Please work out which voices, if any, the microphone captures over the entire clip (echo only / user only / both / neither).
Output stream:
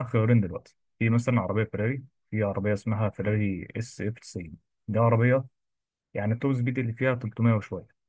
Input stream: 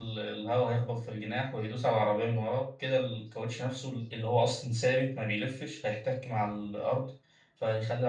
user only